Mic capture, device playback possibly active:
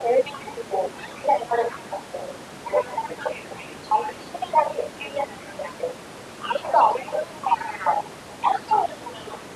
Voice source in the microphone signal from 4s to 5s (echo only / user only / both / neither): echo only